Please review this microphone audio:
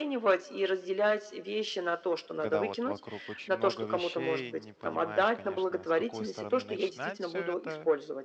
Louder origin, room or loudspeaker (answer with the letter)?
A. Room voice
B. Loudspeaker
B